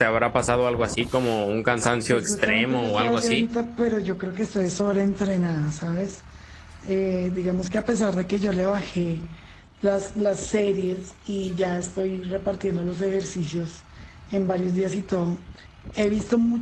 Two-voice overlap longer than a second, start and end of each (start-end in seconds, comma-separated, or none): 2.1-3.4